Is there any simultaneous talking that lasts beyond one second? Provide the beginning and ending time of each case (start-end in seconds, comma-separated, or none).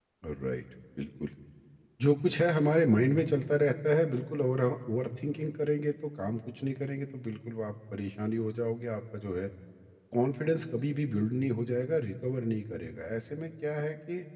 none